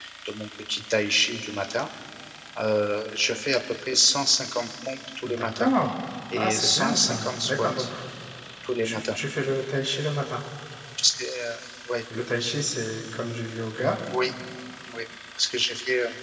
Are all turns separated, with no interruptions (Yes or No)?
No